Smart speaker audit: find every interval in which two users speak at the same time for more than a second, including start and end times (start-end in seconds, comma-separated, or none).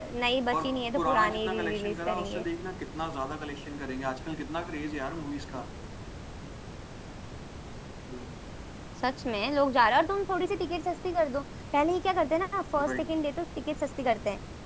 0.5-2.5